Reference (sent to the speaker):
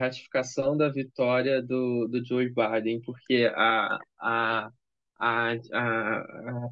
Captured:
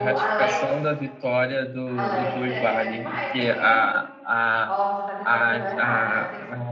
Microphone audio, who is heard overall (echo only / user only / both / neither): both